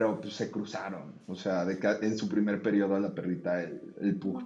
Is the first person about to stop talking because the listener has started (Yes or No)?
No